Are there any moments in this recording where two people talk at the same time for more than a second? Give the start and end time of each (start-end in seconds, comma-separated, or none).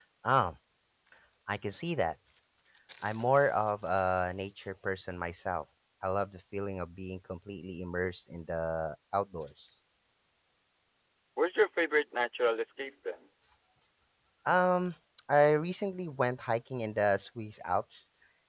none